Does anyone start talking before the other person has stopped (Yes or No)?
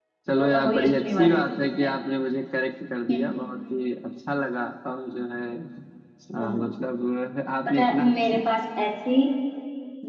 Yes